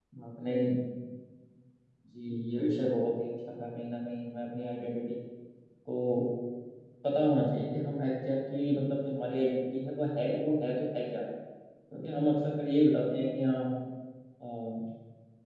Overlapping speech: No

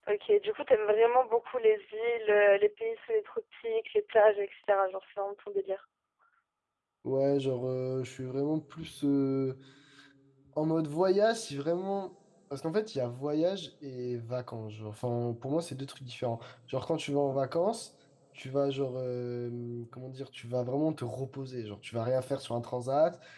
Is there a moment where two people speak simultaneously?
No

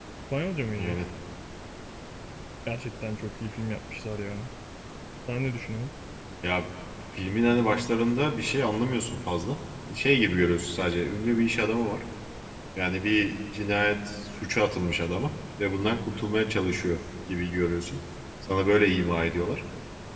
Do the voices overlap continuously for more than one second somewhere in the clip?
No

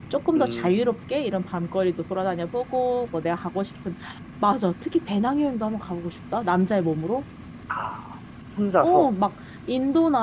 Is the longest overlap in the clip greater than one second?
No

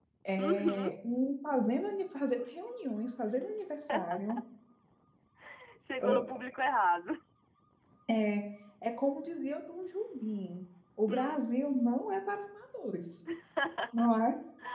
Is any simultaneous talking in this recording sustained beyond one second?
No

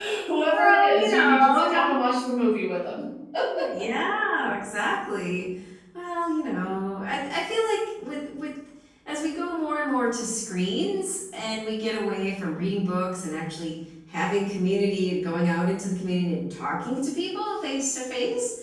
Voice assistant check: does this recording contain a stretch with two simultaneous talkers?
Yes, from 0.5 s

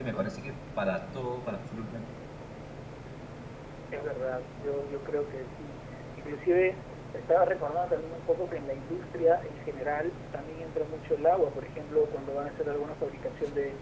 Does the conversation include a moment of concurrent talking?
No

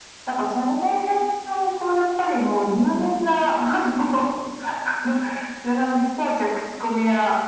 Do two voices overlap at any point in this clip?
No

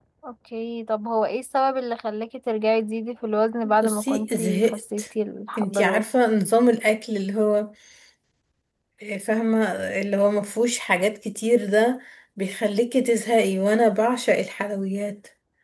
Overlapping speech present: Yes, from 3.6 s

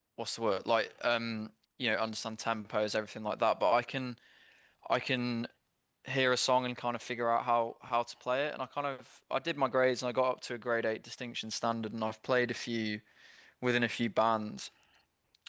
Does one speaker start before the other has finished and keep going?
No

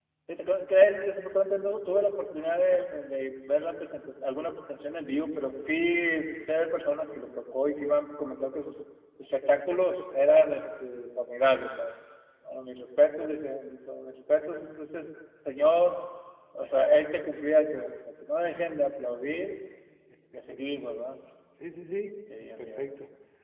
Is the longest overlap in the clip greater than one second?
No

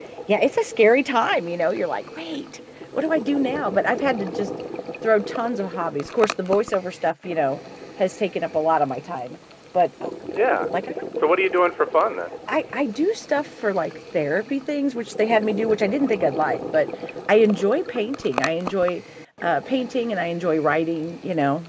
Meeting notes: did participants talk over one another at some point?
No

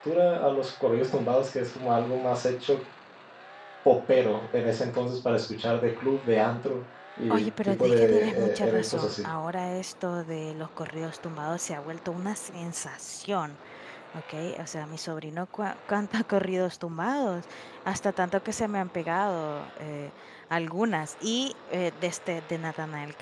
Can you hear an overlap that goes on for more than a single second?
Yes, from 7.3 s

